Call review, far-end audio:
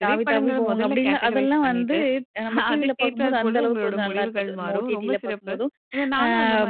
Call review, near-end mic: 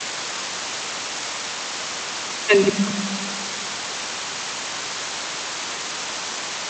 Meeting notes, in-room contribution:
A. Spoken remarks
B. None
A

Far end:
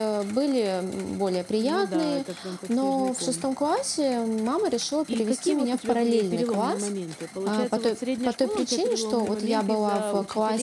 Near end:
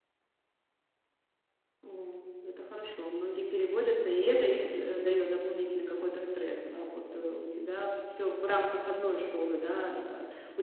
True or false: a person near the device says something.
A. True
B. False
A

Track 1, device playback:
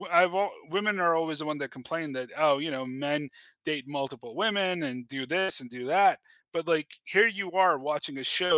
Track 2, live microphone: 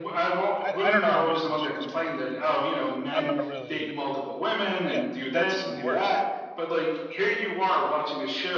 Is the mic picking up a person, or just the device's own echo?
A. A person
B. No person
A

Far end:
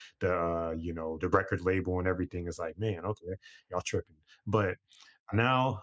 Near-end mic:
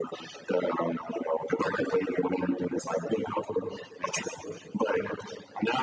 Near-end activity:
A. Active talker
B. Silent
B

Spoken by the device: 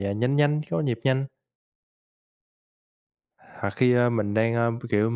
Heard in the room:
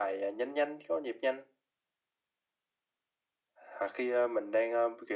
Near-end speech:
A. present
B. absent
B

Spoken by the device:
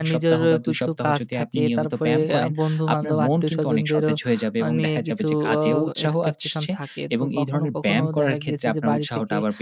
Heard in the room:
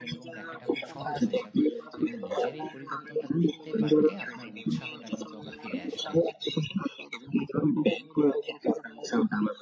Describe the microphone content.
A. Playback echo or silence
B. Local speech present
B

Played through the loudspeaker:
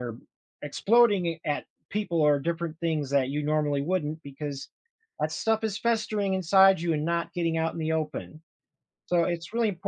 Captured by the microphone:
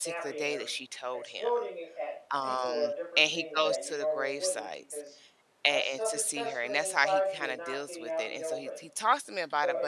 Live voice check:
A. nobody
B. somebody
B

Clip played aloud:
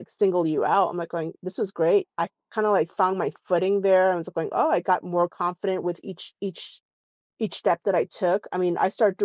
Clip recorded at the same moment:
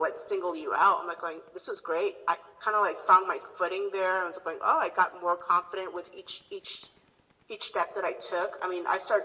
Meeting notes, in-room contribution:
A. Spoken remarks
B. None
B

